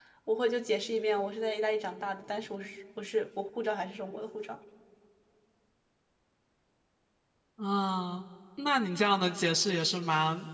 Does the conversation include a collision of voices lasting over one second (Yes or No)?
No